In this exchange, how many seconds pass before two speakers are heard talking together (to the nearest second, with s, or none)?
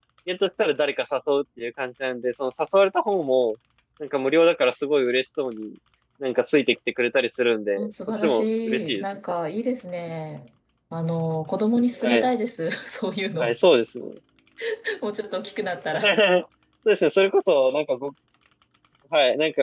8 s